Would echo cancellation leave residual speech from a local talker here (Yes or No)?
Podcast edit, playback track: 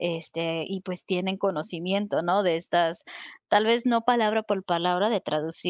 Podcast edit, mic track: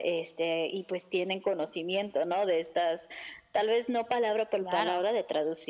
Yes